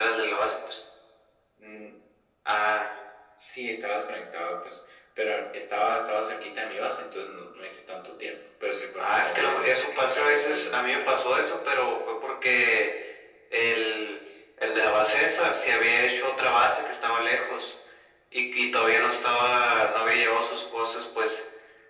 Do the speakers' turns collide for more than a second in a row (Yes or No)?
Yes